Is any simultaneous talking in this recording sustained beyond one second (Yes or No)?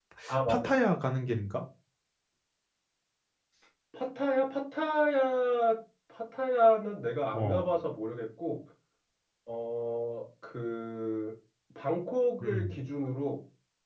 No